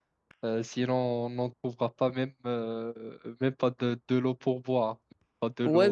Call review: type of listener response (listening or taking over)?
taking over